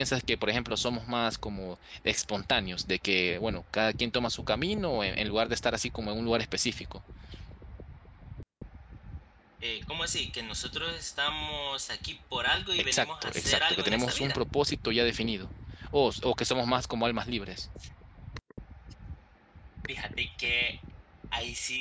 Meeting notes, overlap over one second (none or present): present